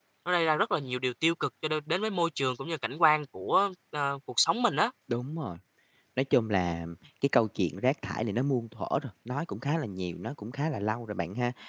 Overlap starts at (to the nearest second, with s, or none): none